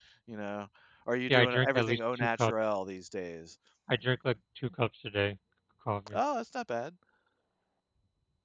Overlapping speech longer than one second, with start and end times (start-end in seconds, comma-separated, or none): 1.3-2.5